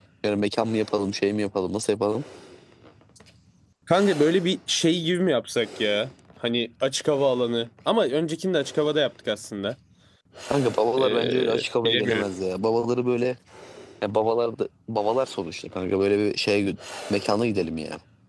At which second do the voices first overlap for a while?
11 s

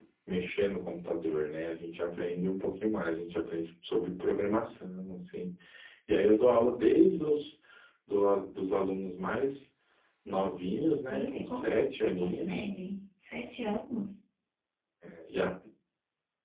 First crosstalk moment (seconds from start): 11 s

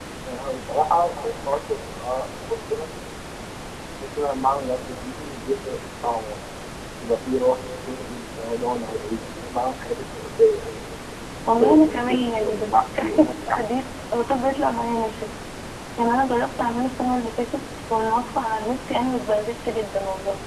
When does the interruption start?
12 s

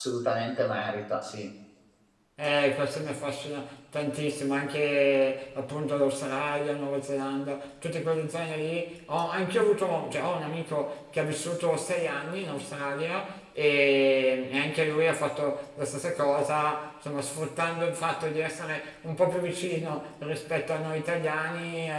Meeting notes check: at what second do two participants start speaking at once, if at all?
none

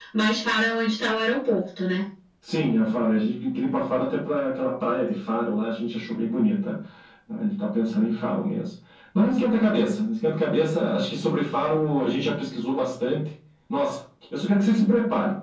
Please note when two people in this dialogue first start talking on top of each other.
none

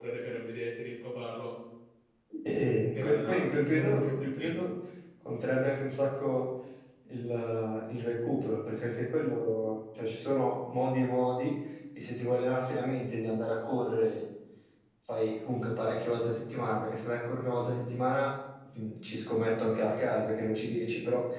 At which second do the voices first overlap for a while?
3 s

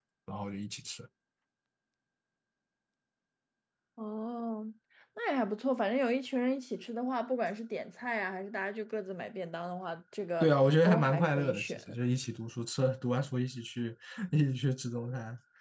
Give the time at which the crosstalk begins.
10 s

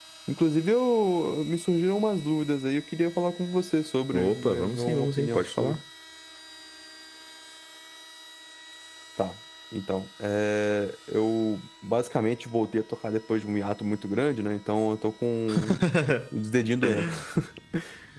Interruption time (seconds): 4 s

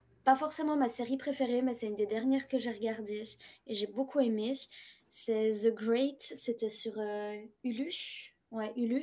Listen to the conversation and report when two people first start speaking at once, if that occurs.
none

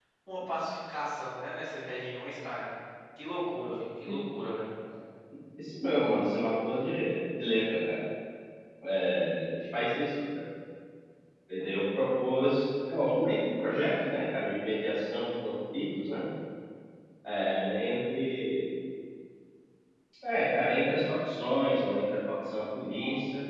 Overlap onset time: none

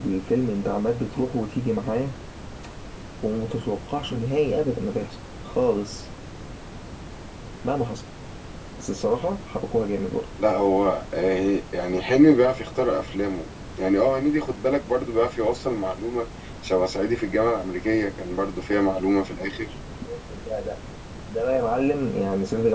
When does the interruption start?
none

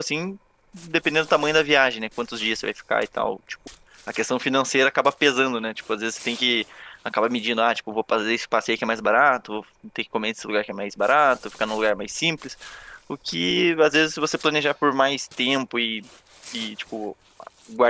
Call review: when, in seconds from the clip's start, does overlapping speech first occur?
none

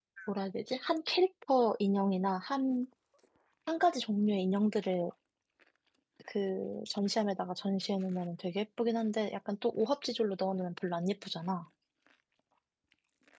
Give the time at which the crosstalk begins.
none

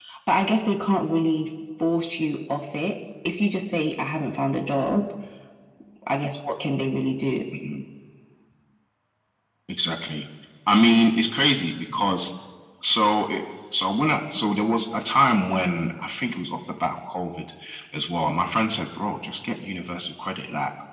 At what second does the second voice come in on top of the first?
none

